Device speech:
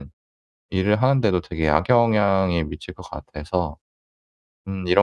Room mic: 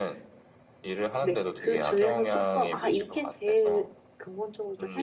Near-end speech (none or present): present